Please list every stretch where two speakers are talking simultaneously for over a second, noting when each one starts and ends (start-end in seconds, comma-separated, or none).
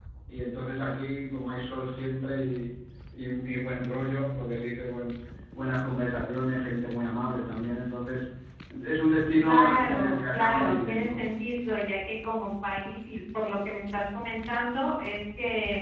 9.4-11.1